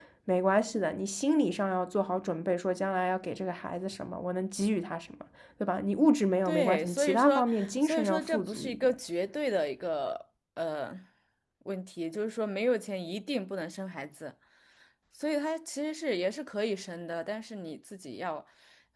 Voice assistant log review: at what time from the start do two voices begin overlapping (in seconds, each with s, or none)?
6.4 s